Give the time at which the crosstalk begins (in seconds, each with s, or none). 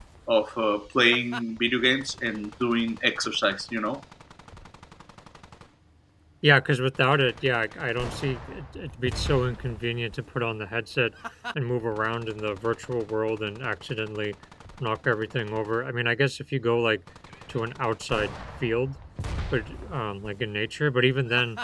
none